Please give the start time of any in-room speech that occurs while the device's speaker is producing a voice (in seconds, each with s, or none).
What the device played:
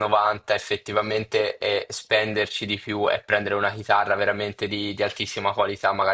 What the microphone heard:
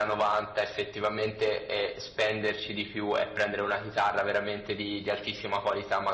none